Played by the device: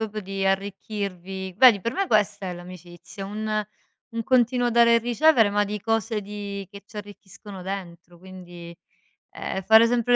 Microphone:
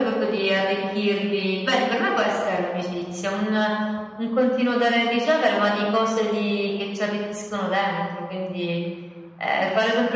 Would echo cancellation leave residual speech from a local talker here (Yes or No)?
No